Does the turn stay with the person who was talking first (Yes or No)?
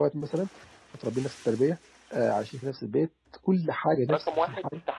No